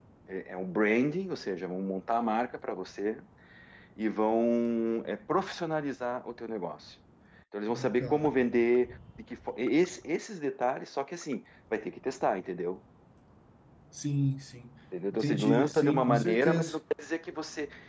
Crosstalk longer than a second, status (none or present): present